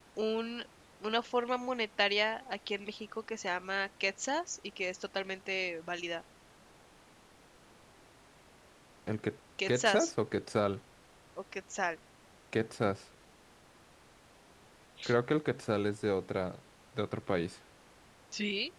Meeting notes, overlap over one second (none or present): none